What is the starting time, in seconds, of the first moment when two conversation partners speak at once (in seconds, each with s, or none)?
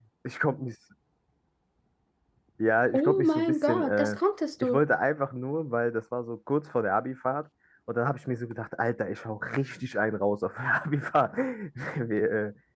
2.9 s